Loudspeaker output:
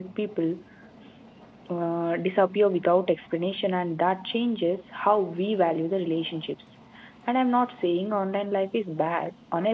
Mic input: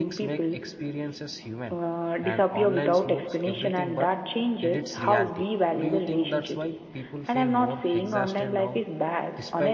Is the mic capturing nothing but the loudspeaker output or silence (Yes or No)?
No